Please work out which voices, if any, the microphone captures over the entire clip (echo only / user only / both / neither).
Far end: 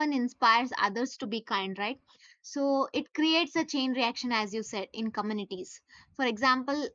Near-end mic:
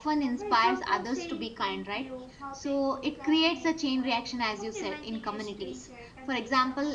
both